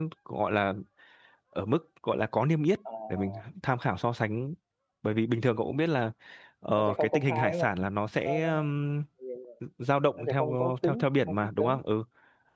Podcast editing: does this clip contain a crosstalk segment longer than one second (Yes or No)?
Yes